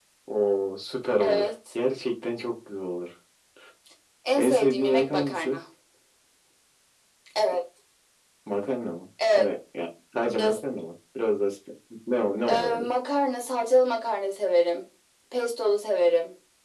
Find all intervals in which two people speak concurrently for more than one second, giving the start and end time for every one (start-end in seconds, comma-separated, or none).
4.4-5.6